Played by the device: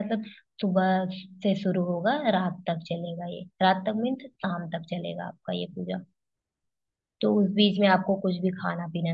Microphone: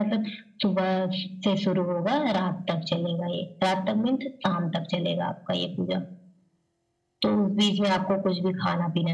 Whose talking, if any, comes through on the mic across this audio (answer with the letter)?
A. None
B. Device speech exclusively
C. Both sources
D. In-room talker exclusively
B